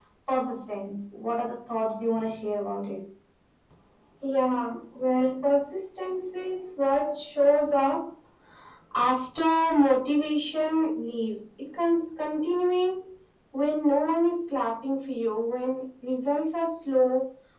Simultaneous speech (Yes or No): No